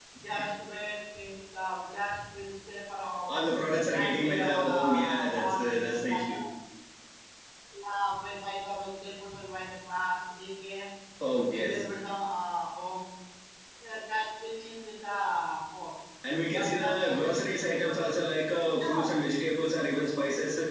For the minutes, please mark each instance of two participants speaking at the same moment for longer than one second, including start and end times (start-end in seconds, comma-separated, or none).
4.0-6.4, 16.5-17.8